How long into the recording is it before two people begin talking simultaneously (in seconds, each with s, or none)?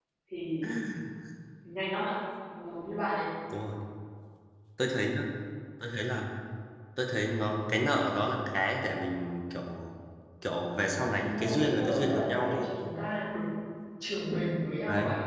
11.2 s